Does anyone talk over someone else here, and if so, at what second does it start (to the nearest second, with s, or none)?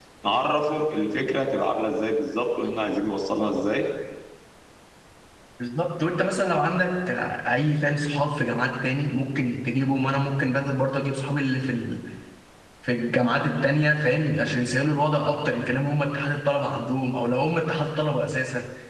none